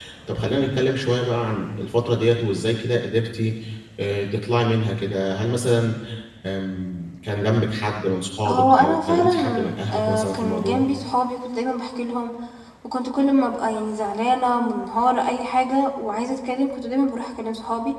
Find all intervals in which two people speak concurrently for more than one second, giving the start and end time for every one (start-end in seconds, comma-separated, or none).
8.5-10.8